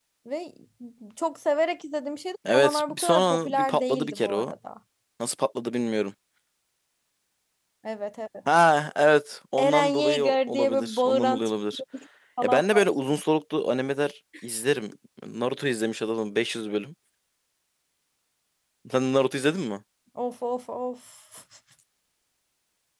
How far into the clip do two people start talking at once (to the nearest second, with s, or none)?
3 s